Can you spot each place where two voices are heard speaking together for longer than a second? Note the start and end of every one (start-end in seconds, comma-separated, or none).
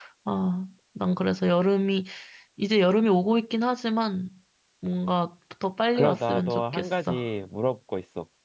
6.0-7.2